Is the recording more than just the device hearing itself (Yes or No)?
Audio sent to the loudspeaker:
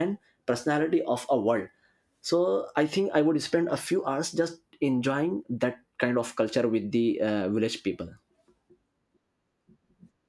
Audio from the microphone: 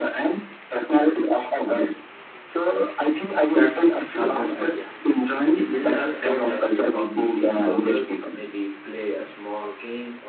Yes